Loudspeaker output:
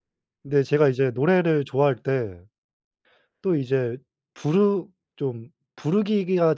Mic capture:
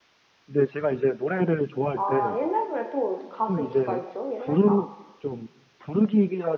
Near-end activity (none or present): present